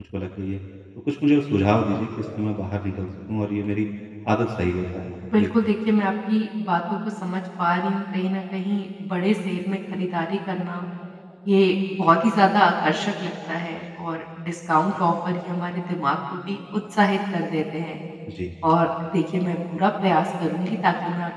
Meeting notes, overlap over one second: none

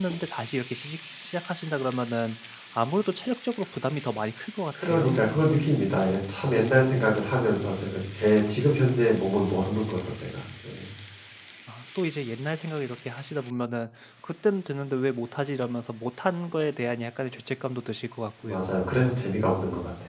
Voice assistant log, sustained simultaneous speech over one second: none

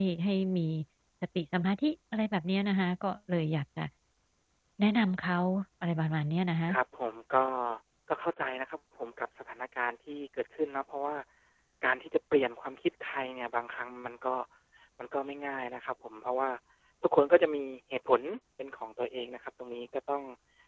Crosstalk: none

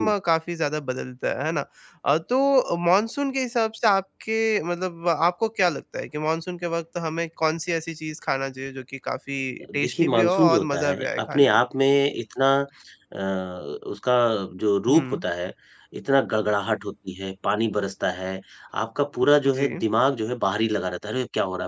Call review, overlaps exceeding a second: present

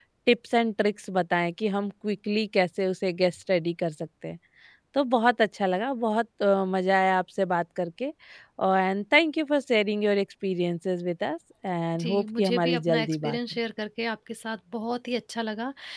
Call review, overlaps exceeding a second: present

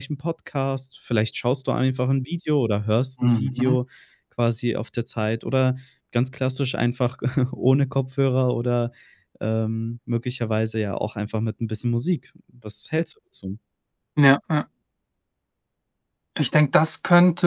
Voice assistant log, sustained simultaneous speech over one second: none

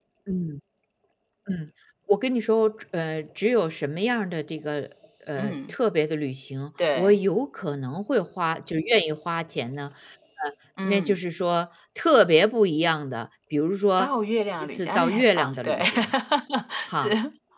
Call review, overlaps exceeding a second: present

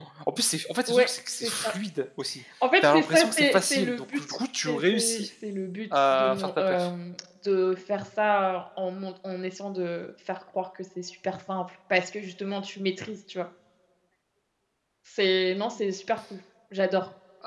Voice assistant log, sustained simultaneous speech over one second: present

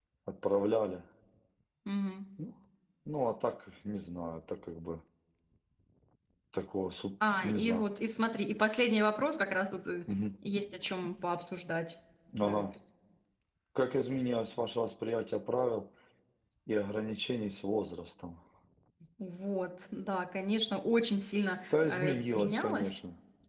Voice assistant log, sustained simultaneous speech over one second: present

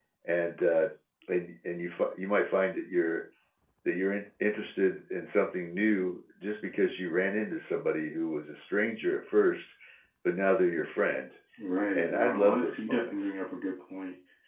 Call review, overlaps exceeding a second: present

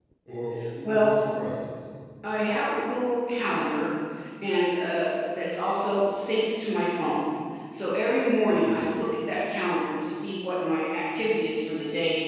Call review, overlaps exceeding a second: none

